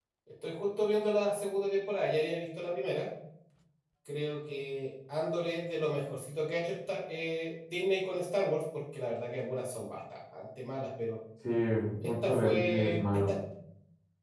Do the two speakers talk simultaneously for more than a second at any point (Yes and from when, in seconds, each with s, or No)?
Yes, from 12.0 s